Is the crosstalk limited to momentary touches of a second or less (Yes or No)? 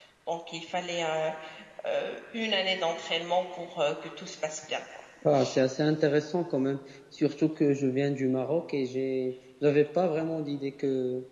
Yes